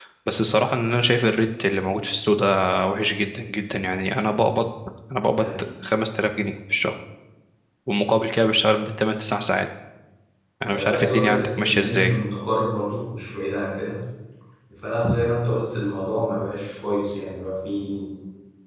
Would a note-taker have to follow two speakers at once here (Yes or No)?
Yes